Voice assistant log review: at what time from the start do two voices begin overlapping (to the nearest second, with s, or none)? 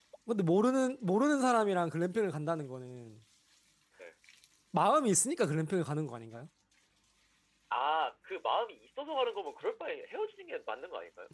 none